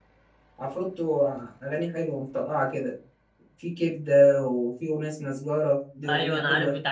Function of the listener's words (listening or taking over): taking over